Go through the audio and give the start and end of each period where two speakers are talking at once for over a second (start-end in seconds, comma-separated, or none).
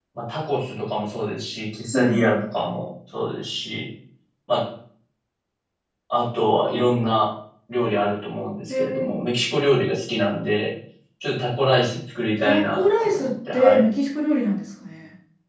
12.4-13.9